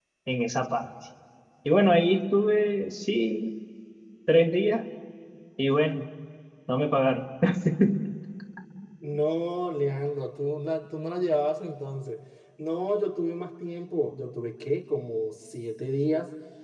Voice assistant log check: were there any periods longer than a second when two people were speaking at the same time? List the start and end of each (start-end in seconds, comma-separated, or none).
none